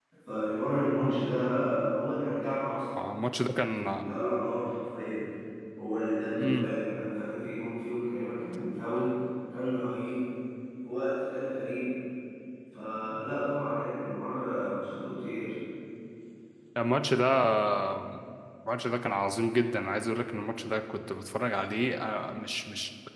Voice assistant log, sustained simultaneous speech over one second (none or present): none